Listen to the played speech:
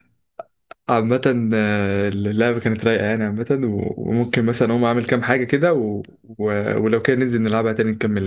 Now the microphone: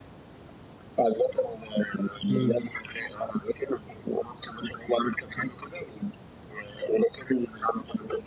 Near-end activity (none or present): present